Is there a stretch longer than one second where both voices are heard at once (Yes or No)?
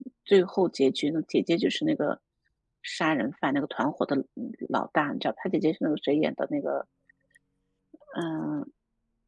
No